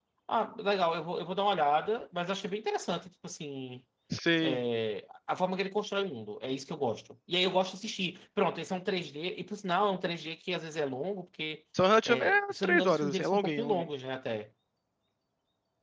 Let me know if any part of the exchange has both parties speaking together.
Yes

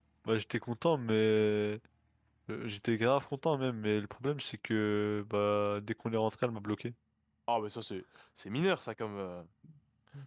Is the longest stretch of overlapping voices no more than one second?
Yes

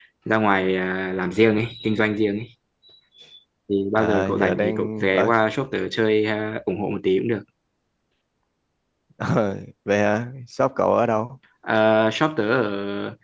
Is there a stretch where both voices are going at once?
Yes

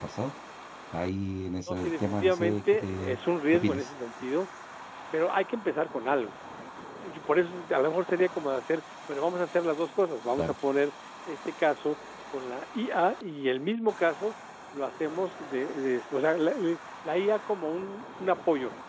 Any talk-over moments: Yes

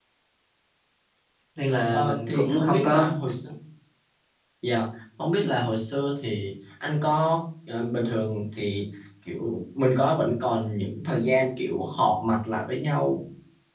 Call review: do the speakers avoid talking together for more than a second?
No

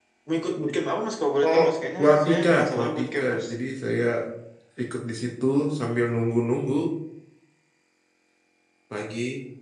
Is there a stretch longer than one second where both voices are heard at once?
Yes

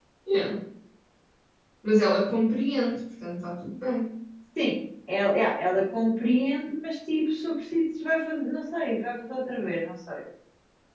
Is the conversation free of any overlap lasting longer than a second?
Yes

